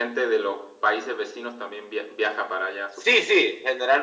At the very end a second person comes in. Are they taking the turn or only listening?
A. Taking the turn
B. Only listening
A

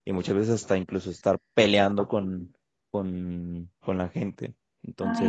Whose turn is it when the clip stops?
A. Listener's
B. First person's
A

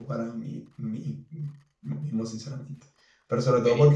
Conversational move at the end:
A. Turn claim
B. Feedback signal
B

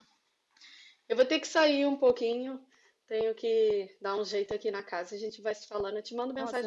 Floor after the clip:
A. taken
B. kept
A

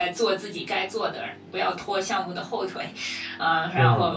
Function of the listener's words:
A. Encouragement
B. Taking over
A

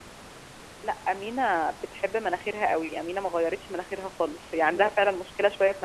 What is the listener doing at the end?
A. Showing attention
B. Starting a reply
A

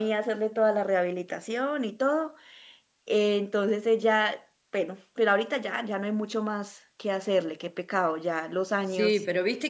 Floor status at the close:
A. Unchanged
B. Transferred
B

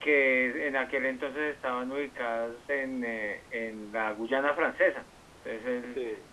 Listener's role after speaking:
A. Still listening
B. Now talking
A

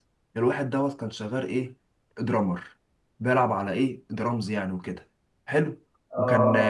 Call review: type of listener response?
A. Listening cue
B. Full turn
A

